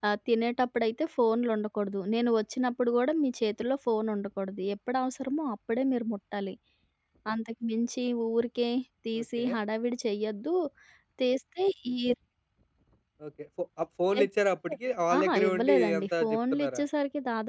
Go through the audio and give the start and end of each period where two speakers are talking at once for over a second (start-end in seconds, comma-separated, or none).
15.2-16.8